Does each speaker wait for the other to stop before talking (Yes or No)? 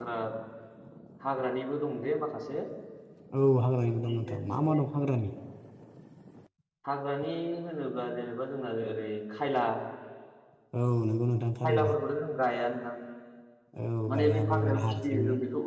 No